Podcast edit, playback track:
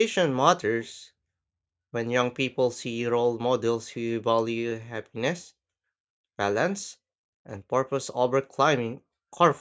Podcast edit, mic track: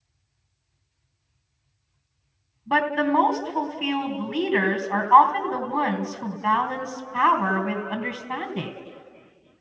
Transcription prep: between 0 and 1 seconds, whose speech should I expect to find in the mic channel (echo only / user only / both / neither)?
neither